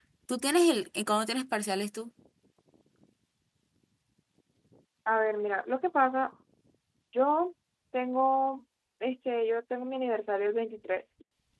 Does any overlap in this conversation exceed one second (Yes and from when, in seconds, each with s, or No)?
No